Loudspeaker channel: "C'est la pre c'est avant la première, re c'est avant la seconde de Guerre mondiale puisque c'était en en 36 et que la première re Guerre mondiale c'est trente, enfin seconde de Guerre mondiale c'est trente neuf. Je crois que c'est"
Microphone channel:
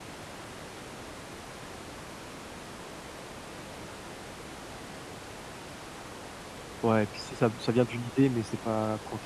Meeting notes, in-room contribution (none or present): present